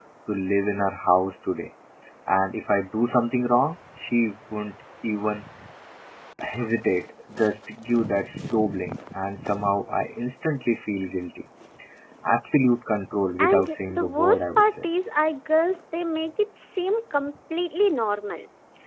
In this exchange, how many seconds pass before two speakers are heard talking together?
13.4 s

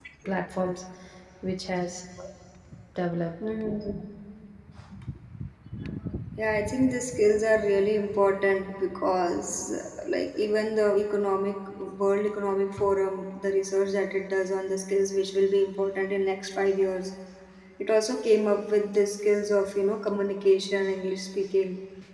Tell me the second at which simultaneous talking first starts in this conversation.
none

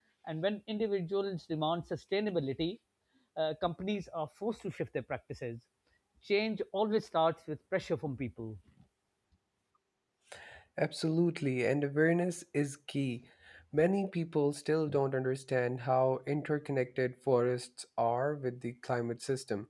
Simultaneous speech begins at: none

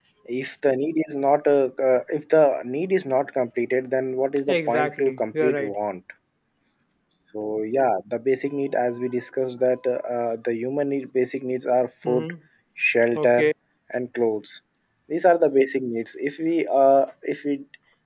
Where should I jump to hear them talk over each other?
4.5 s

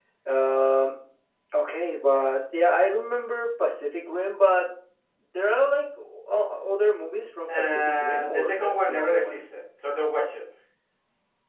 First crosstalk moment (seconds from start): 7.5 s

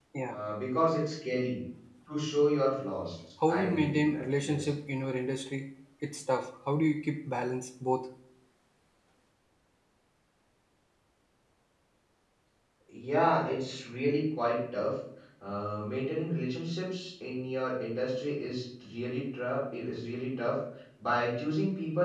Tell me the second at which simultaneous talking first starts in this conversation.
3.4 s

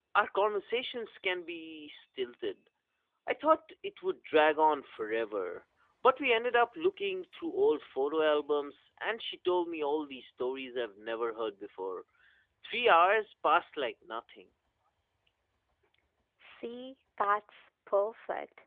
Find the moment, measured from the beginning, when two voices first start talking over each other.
none

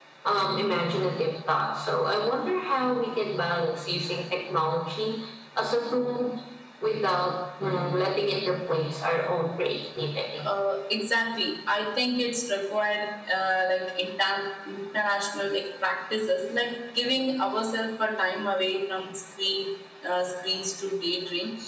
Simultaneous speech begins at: none

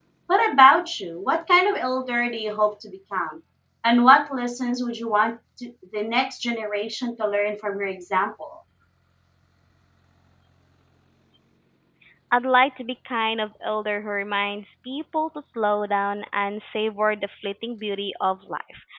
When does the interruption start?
none

